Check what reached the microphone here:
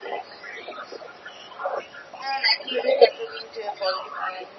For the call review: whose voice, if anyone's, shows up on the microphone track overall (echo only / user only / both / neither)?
echo only